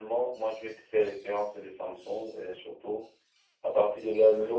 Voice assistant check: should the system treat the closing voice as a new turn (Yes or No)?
No